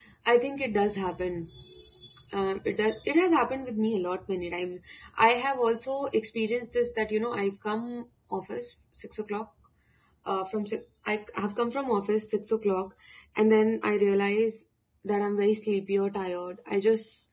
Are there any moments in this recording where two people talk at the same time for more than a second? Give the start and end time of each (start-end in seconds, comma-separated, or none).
none